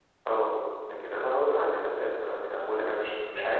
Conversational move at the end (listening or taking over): taking over